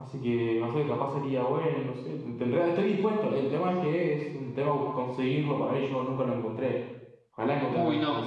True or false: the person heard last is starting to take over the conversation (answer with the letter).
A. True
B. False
A